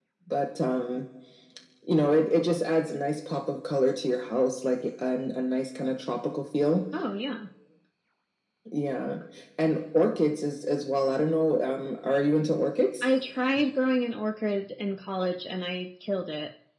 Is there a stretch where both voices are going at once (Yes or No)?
No